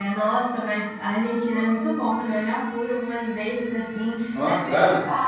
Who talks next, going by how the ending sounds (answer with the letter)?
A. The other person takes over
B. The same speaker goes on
B